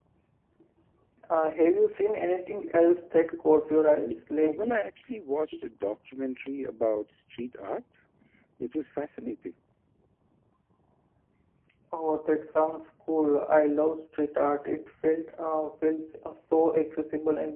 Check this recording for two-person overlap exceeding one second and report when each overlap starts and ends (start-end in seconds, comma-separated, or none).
none